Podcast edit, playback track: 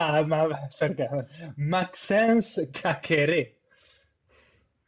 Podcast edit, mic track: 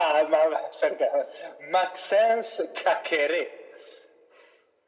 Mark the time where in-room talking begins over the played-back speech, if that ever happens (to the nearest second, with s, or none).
none